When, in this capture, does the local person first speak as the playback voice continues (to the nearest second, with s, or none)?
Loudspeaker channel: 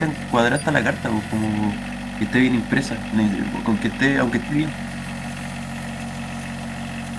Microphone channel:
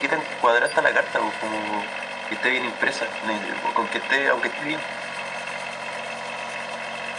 none